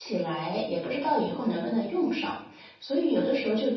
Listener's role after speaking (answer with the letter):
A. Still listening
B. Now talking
A